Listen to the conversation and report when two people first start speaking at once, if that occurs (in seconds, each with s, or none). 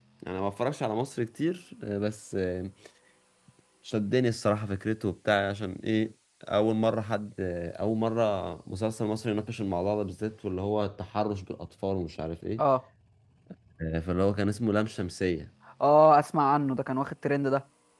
none